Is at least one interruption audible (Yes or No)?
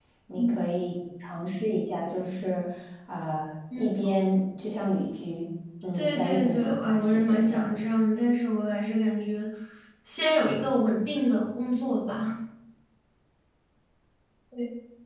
Yes